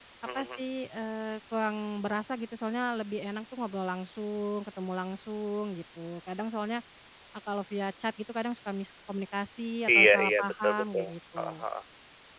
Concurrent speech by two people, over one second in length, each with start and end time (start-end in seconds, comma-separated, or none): 9.9-11.6